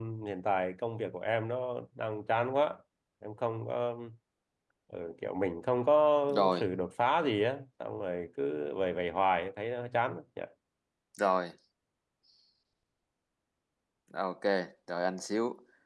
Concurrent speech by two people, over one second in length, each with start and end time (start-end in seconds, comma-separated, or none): none